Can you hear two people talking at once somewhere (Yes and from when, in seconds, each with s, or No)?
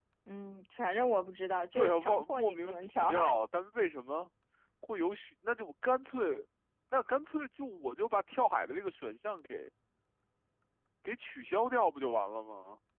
Yes, from 1.7 s